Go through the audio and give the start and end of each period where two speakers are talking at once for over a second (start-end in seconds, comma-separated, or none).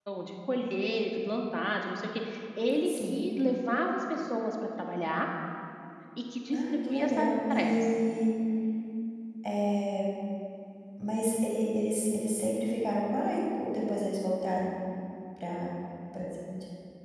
6.5-7.9